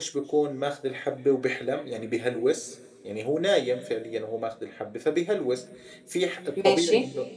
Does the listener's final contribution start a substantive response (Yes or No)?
No